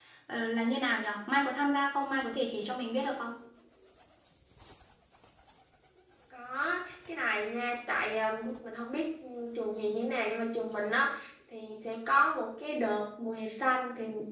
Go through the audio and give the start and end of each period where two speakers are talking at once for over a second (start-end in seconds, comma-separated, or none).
none